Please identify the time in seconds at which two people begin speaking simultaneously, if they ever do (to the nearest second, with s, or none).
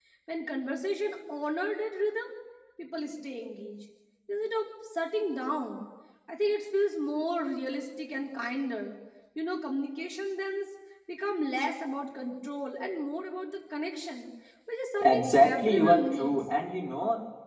15 s